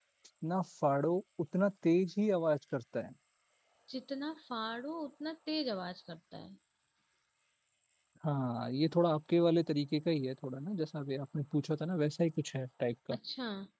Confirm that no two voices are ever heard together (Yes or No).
Yes